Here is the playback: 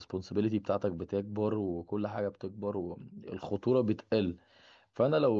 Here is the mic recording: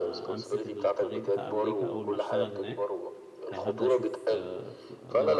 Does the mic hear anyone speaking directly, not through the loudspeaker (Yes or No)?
Yes